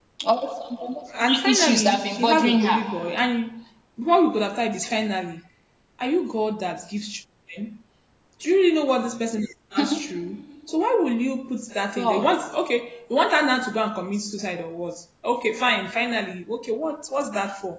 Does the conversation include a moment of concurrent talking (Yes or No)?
Yes